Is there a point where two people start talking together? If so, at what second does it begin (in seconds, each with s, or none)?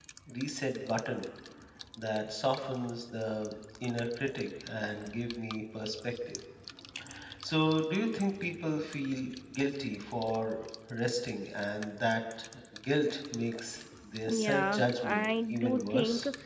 14.3 s